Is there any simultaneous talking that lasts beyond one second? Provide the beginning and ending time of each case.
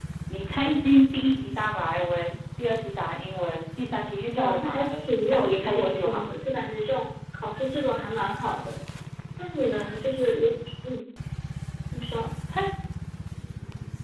4.4-6.2

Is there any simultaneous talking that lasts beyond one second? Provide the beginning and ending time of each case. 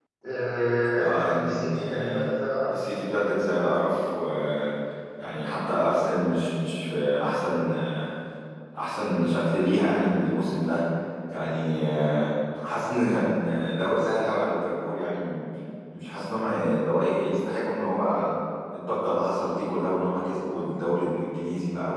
0.9-2.2

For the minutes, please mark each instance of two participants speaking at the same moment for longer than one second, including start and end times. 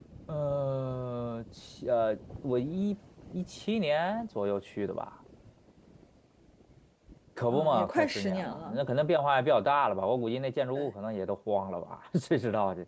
7.5-8.8

